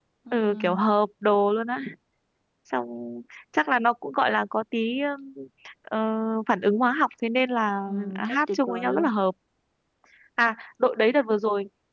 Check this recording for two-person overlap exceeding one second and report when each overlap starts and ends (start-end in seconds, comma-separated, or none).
7.9-9.1